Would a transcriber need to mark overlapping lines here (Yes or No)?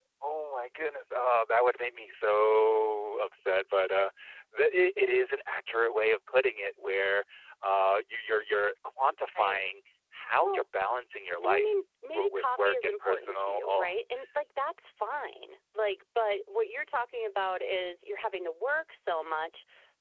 Yes